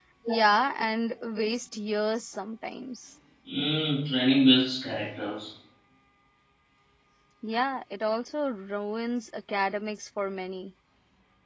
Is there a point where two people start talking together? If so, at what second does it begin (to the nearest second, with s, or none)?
none